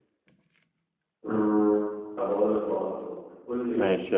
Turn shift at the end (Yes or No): No